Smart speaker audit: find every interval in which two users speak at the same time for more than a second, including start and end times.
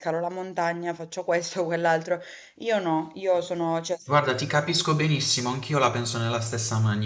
none

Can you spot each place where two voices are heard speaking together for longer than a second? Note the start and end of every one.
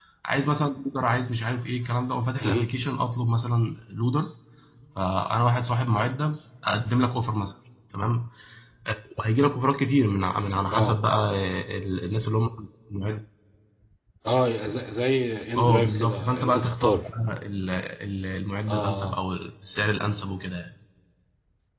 15.6-17.0

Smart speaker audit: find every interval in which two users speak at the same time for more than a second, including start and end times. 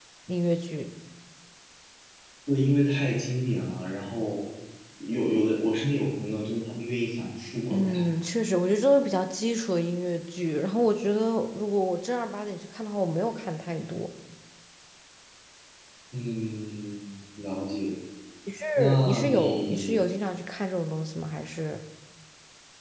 18.8-20.0

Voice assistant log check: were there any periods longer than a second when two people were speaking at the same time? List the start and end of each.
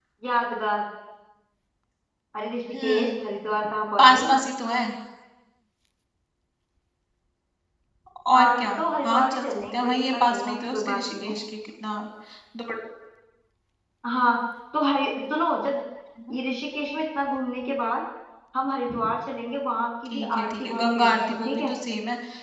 8.3-11.3, 20.1-21.7

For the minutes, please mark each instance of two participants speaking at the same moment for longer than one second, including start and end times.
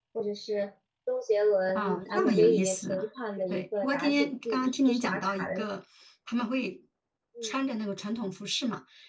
1.8-3.0, 3.5-5.6

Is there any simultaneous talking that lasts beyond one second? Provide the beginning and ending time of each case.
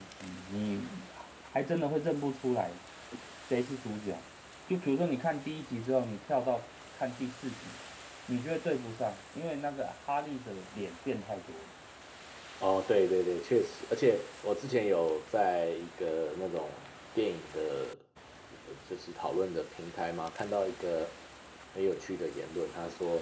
none

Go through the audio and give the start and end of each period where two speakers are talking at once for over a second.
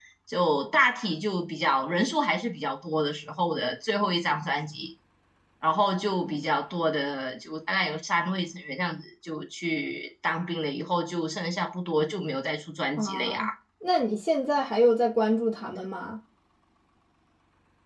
none

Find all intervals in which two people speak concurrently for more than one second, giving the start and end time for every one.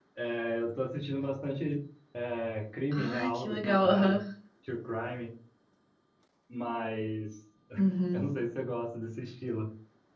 2.9-4.2

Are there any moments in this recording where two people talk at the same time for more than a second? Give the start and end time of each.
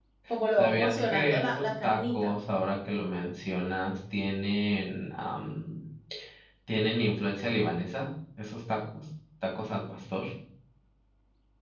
0.6-2.3

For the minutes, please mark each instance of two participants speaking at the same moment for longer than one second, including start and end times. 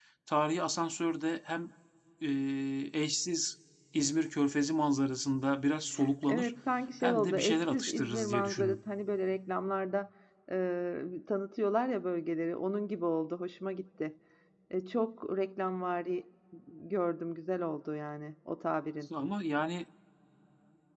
7.0-8.8

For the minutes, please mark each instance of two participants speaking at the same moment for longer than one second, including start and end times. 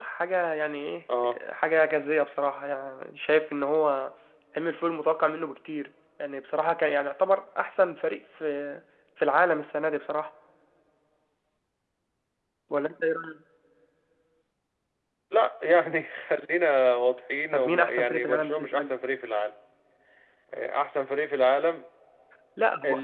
17.5-19.0

